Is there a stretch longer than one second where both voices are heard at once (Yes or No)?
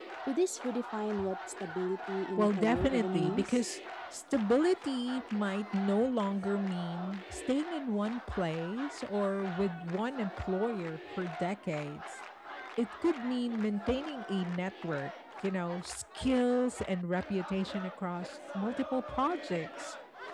Yes